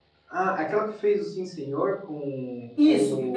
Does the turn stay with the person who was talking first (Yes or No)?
No